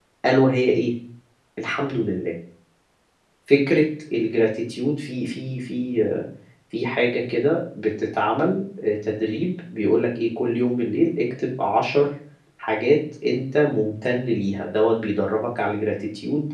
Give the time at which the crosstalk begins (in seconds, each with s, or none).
none